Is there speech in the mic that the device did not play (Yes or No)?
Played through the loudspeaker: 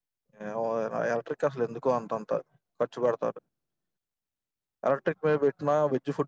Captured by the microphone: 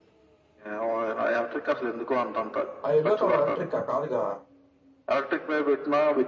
Yes